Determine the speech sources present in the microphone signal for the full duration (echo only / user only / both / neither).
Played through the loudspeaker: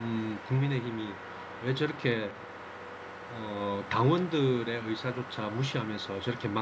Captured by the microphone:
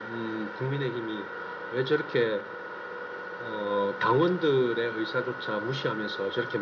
echo only